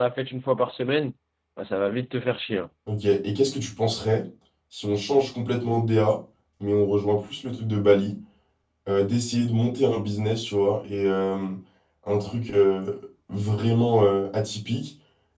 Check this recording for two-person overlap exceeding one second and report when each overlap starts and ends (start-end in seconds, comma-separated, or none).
none